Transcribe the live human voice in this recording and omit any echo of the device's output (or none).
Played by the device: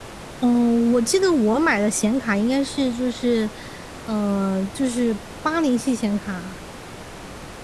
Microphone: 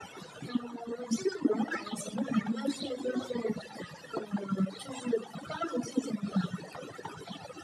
嗯，那